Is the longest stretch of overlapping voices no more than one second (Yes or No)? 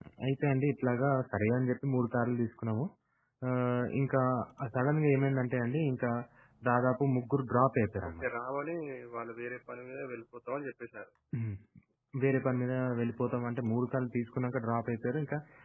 Yes